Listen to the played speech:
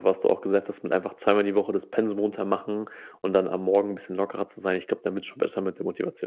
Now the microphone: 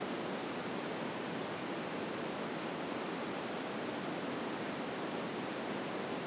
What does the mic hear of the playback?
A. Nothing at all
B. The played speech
A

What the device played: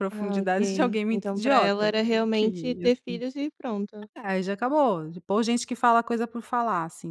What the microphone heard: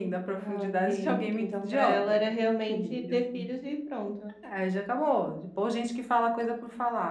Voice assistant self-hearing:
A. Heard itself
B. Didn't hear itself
A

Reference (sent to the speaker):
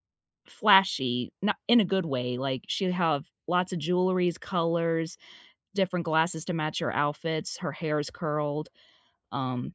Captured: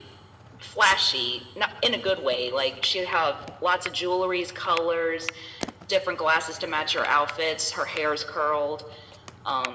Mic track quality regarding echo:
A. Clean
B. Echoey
B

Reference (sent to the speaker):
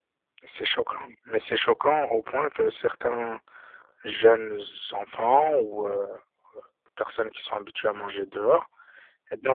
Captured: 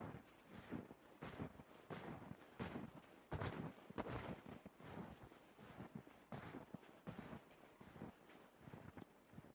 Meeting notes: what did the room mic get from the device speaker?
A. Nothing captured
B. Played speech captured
A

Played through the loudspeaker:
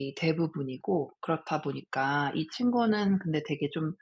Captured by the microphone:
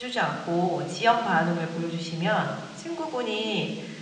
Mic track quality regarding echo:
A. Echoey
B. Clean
B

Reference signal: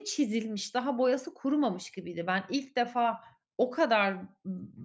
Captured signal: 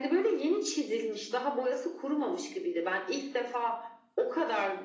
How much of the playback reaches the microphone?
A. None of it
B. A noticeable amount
B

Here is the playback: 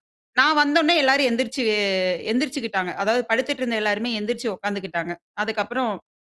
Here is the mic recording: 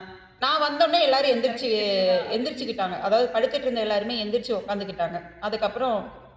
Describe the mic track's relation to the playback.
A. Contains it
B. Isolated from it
A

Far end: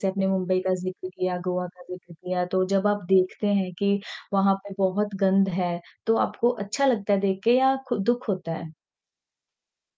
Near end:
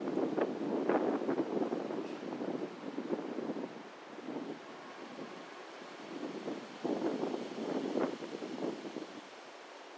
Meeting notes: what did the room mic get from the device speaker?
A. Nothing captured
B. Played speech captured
A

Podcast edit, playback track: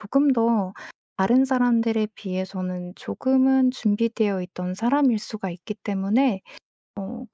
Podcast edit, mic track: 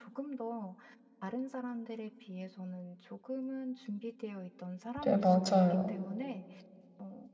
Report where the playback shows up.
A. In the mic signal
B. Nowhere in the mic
A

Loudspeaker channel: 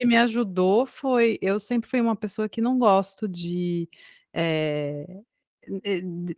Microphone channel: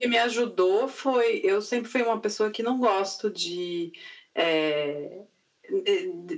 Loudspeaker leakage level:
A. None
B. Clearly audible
B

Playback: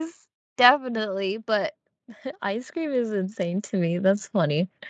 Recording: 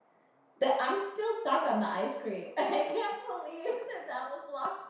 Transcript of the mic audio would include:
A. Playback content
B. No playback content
B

